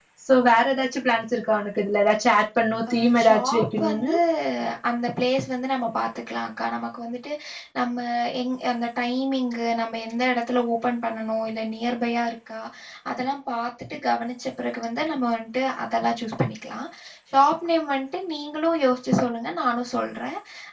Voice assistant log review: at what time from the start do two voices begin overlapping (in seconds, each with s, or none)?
2.9 s